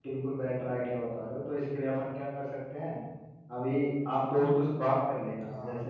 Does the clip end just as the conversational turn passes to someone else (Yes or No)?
No